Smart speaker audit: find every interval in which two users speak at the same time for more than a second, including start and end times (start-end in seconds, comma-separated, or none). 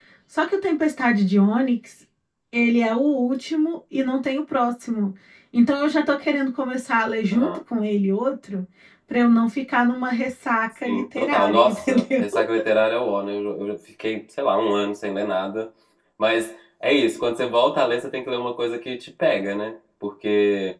10.8-12.2